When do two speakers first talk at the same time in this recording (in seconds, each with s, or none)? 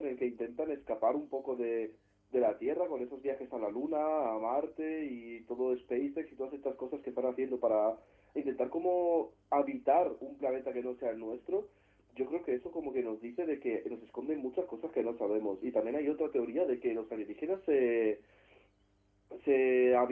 none